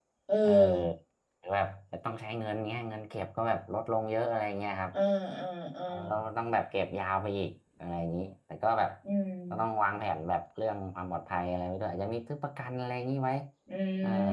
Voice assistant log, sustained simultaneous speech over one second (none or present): none